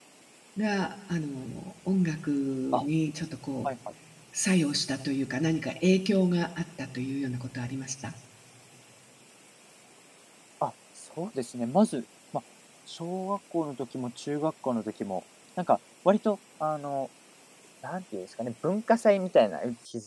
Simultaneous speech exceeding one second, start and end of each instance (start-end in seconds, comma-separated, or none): none